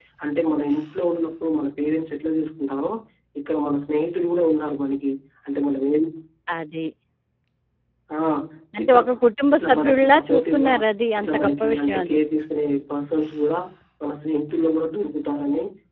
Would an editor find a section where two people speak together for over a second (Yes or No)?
Yes